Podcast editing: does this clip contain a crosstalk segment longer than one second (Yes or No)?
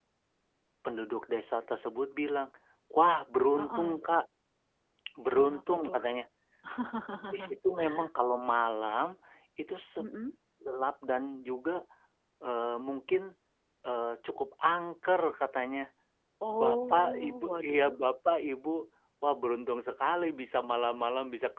Yes